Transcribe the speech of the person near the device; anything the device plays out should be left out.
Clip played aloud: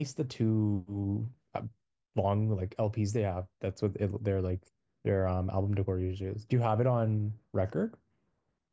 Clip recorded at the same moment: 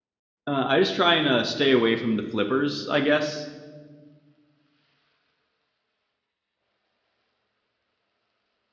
uh, i just try and uh, stay away from the flippers i guess

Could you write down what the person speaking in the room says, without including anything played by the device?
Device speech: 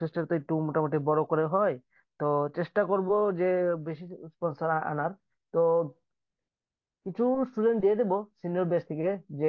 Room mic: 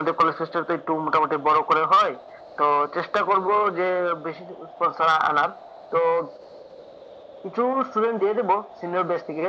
none

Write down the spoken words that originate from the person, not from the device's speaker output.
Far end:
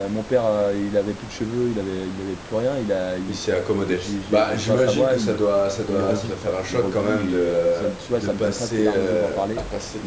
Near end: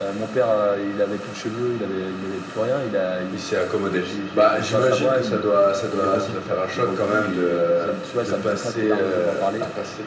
none

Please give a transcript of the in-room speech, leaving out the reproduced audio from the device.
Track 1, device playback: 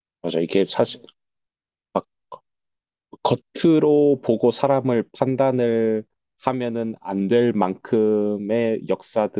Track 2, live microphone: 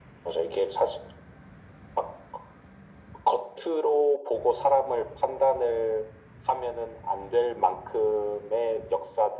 none

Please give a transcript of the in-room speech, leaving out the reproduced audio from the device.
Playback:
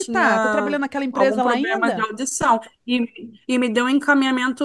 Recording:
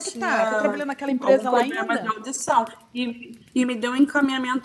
none

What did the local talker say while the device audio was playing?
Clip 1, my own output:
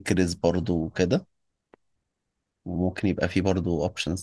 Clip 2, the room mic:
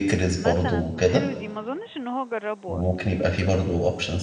مثلا حلو دي ما اظنش ان هو جربه اصلا

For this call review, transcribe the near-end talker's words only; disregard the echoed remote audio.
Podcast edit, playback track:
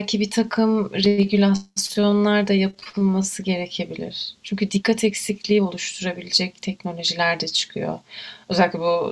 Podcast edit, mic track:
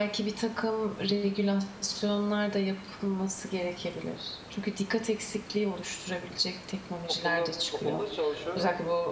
okulda okulda çalışıyorum.

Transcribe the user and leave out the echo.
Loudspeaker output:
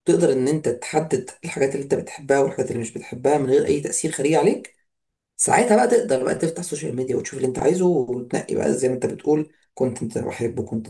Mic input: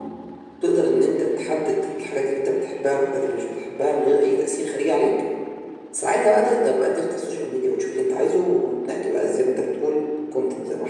none

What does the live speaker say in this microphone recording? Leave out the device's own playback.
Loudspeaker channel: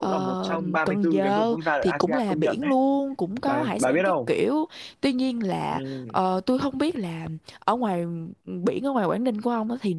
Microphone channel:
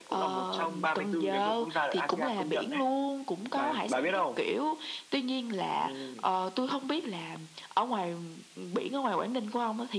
none

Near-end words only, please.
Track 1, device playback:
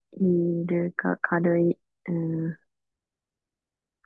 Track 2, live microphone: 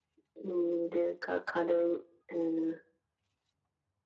none

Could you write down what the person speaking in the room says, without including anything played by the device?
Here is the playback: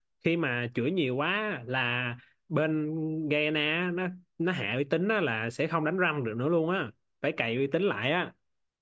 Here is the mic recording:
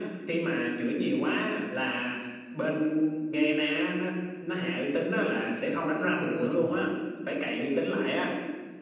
có khi thua nhưng mà

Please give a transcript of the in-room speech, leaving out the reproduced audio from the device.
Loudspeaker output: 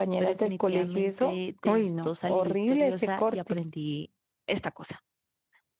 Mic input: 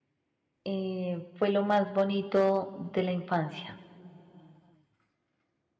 eh, fue lo más bonito de la infancia

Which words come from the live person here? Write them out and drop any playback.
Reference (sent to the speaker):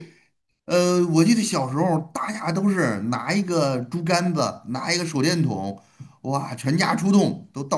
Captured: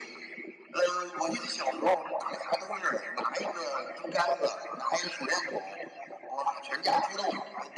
none

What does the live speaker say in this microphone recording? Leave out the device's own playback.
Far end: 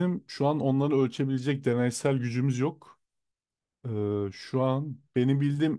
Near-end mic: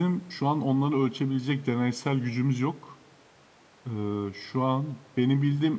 none

